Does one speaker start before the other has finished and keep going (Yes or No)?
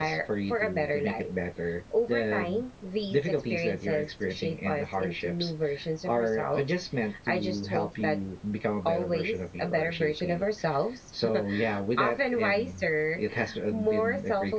Yes